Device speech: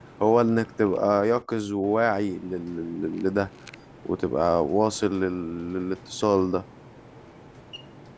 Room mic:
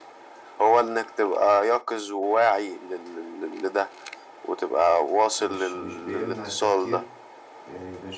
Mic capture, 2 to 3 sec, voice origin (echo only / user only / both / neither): echo only